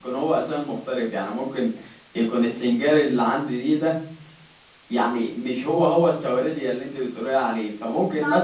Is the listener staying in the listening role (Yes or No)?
No